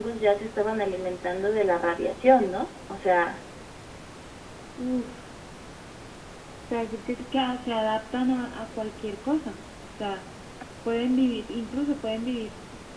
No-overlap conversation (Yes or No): Yes